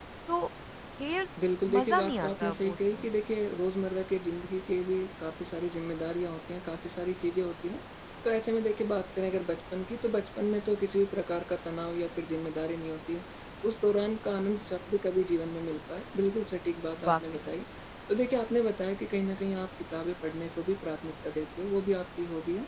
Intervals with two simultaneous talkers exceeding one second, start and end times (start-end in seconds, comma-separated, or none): 1.6-3.1